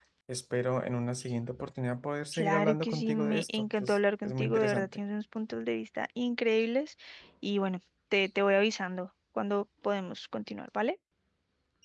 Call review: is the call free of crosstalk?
No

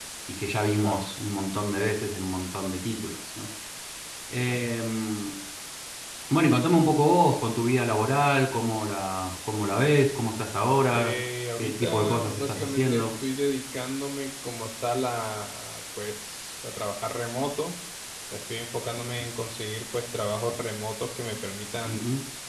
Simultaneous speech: Yes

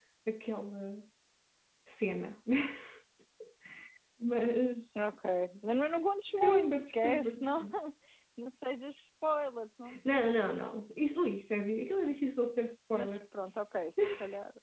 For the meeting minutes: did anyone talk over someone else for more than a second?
Yes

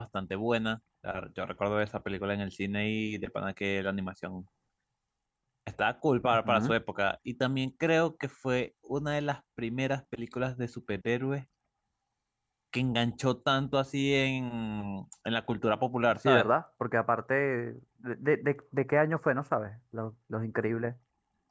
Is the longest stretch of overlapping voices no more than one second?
Yes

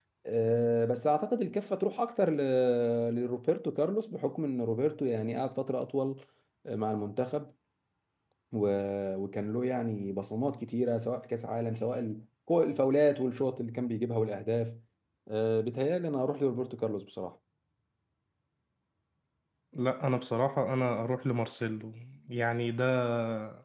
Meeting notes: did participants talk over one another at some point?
No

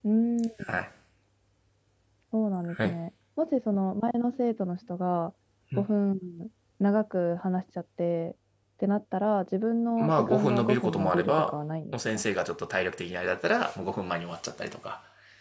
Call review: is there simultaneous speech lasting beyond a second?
Yes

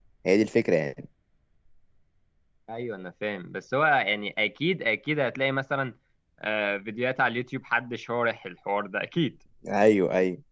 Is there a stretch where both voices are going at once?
No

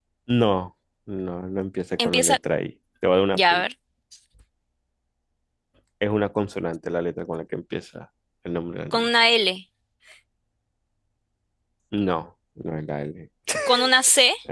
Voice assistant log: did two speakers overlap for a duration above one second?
No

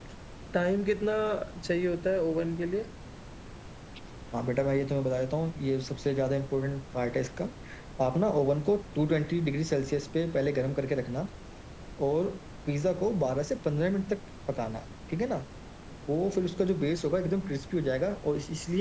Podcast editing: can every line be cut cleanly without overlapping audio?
Yes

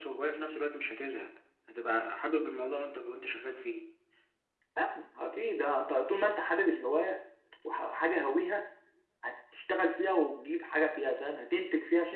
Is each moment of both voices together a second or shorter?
Yes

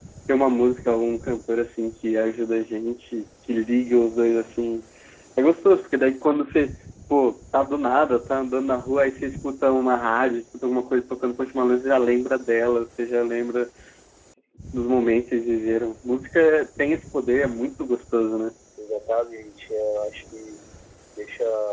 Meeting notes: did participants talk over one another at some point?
No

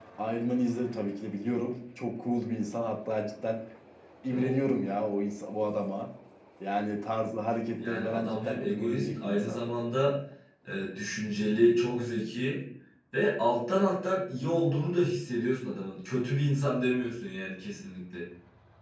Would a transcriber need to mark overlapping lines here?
Yes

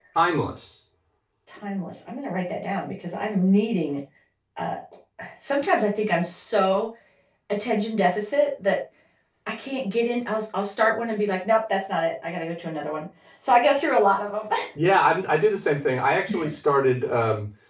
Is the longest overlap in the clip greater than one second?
No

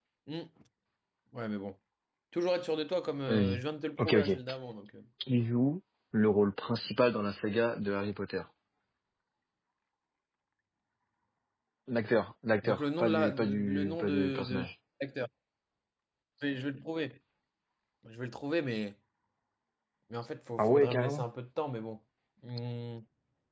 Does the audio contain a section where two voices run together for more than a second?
Yes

